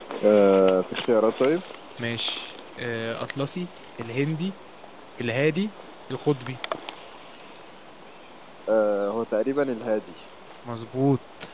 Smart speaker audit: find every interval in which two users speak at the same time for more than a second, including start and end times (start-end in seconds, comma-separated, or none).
none